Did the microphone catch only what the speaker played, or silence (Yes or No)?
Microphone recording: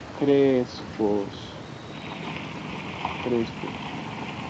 Yes